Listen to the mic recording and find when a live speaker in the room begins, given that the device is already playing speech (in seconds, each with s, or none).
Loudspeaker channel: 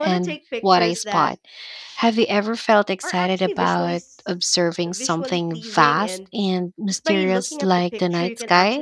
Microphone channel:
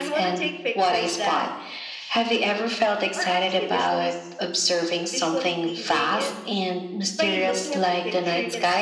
none